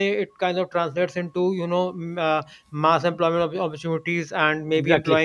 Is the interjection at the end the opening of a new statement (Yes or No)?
No